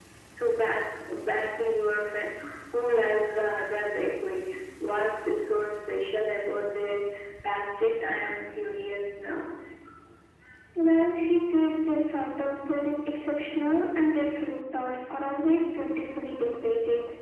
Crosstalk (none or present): none